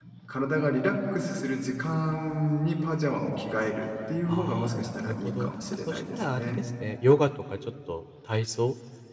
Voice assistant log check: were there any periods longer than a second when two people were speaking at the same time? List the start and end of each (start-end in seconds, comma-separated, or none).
4.3-6.6